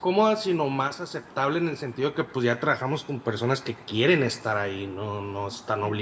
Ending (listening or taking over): taking over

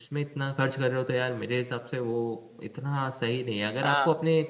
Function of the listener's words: listening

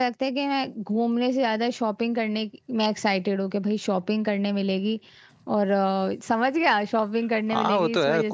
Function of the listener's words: taking over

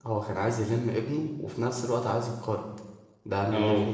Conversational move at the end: taking over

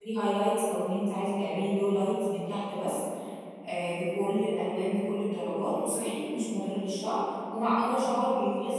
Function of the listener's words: listening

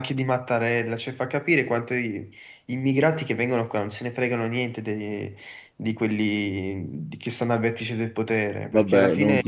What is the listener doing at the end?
taking over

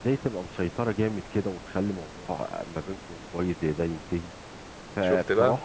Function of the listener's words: listening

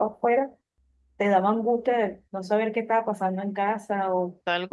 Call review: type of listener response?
taking over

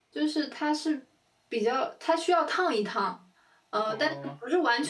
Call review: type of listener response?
listening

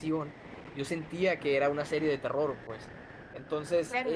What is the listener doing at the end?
taking over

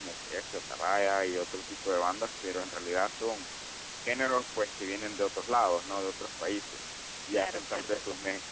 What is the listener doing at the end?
listening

